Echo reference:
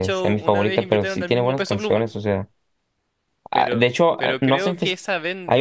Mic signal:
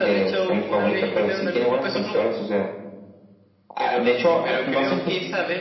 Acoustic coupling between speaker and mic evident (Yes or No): Yes